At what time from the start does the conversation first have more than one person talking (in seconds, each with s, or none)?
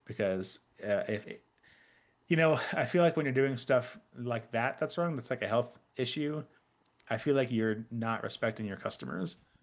none